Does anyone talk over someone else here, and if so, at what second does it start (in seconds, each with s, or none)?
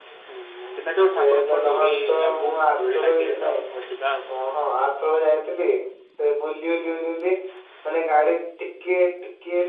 1.2 s